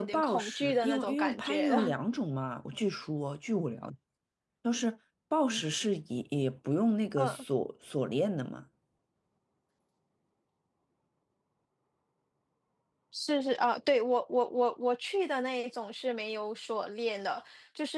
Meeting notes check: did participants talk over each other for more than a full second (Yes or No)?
Yes